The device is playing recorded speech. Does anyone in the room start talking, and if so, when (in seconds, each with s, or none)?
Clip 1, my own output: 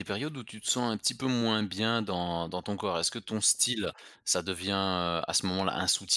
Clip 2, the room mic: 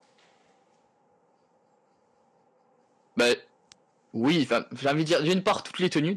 3.2 s